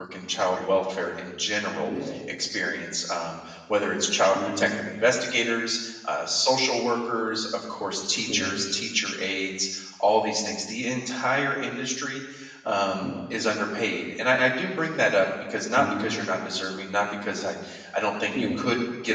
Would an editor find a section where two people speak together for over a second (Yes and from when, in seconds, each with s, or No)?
No